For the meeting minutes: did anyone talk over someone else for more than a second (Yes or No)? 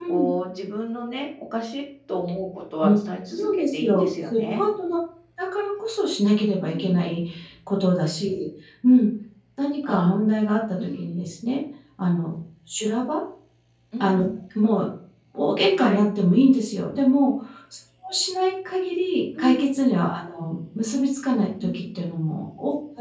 Yes